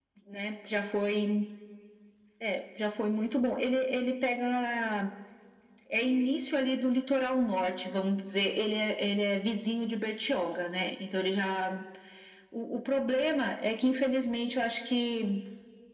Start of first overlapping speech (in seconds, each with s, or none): none